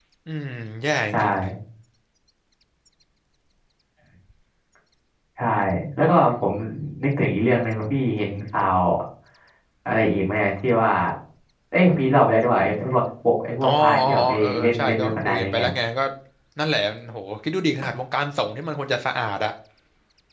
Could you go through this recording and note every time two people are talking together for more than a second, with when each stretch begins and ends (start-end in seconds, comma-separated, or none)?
13.7-15.7